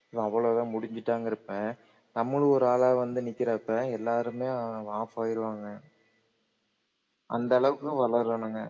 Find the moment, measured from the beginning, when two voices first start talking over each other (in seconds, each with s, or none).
none